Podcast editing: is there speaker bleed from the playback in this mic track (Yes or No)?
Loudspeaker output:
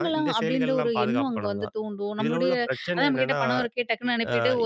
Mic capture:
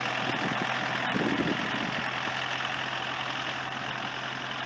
No